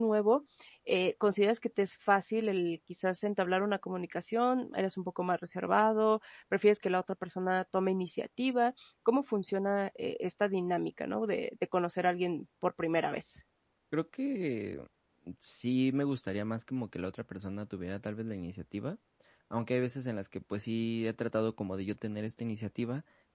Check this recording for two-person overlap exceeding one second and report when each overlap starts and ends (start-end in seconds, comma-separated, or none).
none